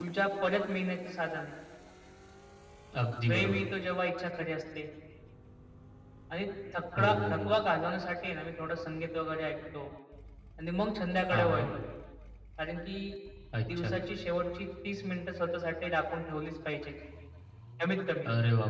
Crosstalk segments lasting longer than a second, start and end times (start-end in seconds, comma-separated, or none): none